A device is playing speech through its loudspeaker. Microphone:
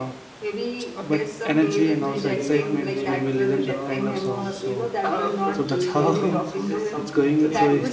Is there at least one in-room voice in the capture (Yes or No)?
Yes